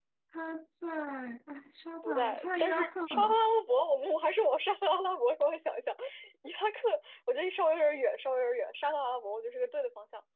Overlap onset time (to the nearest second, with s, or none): 2 s